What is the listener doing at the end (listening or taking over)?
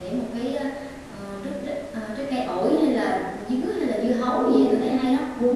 taking over